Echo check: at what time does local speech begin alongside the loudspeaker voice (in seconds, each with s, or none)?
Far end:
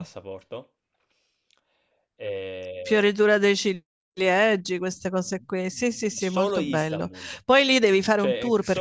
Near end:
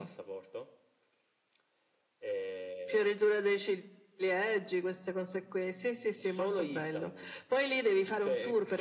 none